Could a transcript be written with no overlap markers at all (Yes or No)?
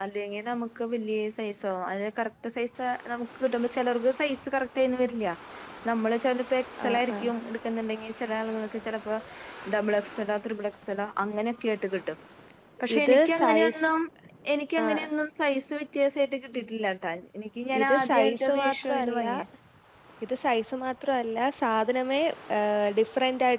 No